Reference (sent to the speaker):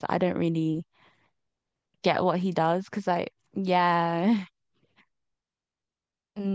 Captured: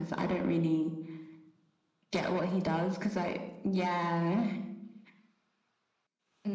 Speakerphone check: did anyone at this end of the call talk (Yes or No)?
No